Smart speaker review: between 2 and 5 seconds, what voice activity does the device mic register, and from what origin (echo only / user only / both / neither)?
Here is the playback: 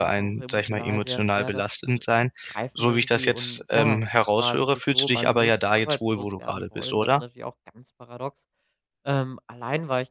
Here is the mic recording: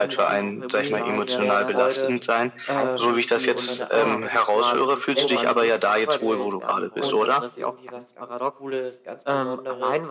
both